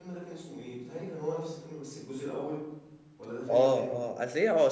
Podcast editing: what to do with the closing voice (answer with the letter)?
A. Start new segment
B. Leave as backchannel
A